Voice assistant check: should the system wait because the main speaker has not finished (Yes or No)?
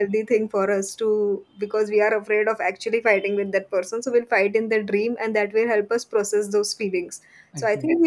Yes